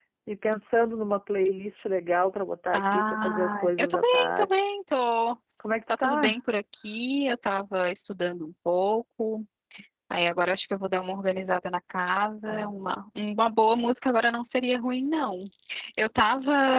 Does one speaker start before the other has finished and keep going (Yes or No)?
Yes